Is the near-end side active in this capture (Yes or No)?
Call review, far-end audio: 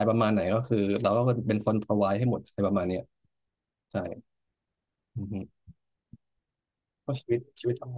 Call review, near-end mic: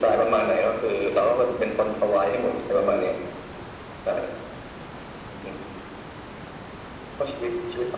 No